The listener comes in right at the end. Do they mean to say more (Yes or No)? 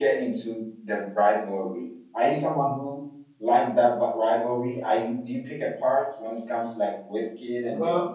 Yes